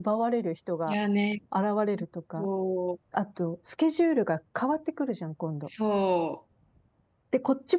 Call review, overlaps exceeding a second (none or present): none